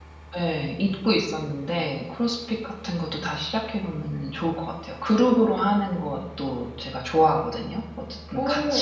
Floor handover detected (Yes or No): No